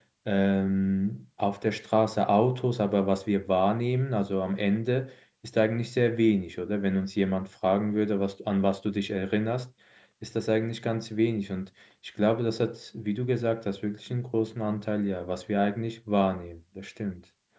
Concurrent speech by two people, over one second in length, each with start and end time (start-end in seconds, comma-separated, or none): none